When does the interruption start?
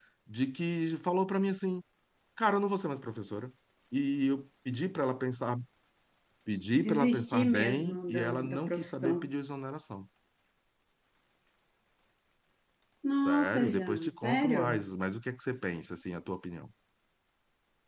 7 s

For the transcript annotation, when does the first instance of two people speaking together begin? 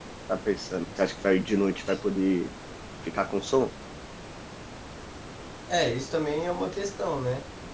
none

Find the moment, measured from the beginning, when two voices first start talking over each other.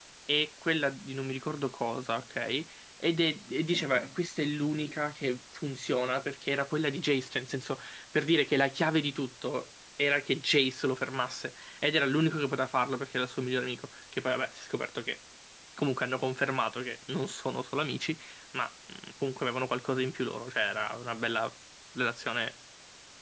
none

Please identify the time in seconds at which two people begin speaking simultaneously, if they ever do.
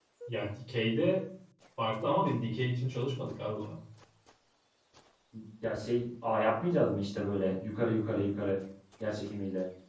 none

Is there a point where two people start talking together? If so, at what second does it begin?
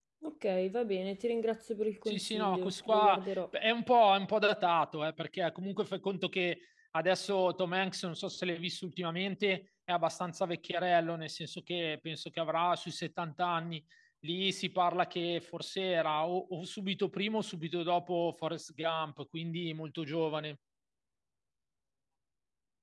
2 s

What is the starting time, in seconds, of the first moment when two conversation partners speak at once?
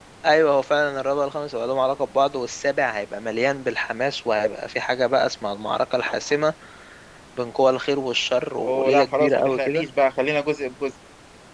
9 s

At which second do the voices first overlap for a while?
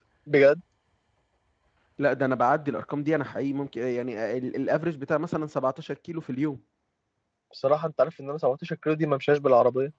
none

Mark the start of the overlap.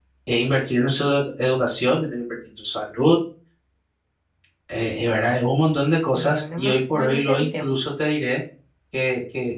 6 s

